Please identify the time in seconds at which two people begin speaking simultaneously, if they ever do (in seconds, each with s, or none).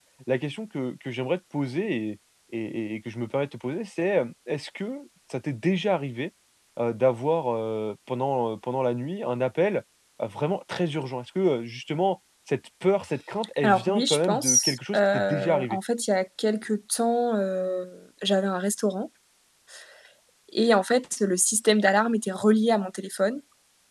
13.6 s